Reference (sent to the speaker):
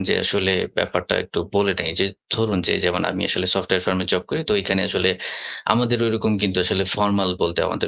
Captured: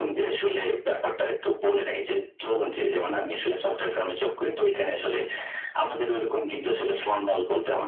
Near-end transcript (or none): none